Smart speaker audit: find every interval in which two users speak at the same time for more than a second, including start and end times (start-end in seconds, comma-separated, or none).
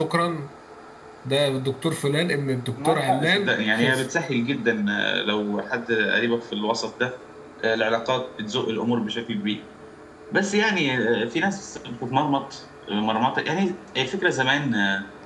2.8-4.0